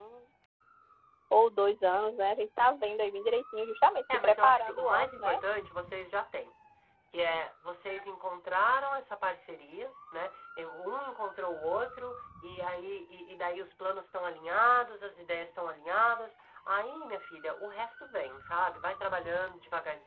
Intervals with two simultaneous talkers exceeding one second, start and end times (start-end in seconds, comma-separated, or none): 4.1-5.4